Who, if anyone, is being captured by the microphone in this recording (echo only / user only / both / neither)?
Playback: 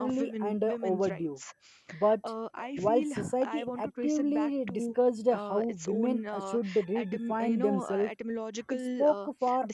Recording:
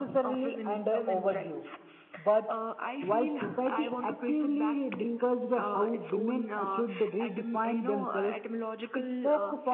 echo only